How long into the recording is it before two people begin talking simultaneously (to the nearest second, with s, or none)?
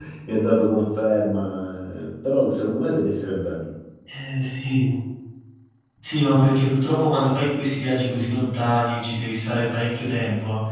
none